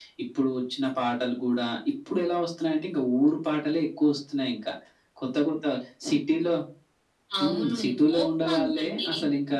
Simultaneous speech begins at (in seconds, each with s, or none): 7.4 s